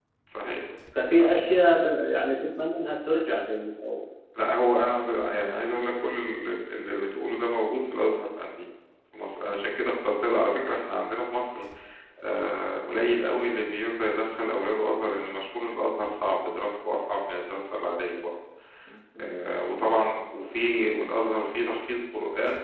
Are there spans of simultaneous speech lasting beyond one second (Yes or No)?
No